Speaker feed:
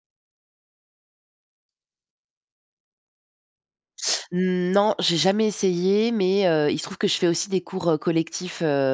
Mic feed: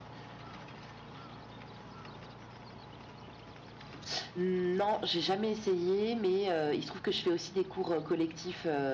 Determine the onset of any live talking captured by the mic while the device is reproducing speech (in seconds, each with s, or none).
none